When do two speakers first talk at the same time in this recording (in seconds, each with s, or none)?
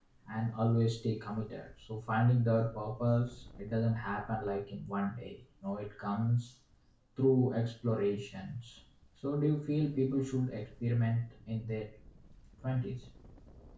none